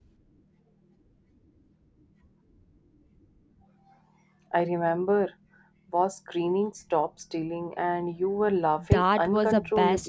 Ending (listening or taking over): taking over